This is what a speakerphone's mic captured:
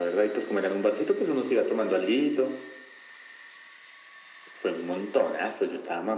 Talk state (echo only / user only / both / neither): echo only